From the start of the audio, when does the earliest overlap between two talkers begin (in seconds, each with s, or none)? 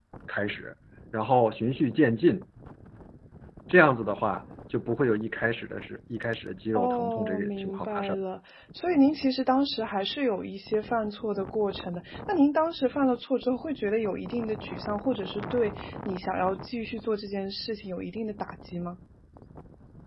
6.8 s